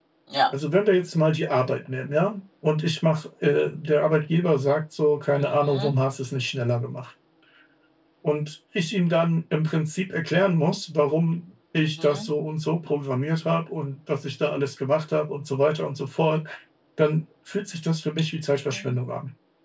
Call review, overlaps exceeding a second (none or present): none